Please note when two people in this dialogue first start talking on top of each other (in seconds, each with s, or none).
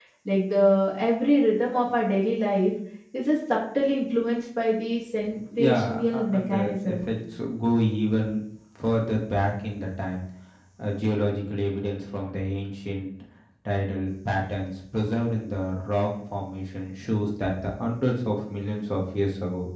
5.4 s